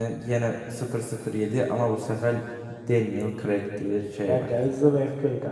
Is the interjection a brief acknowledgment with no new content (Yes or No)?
No